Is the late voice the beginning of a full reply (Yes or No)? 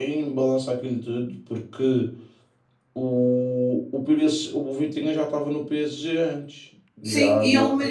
Yes